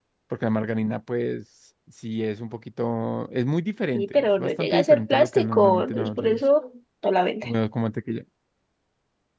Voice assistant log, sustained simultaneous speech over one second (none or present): present